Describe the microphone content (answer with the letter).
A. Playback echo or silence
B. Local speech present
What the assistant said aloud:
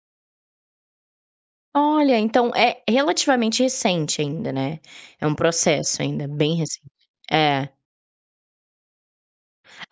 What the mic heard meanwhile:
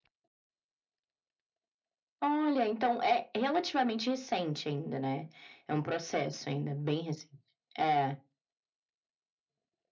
A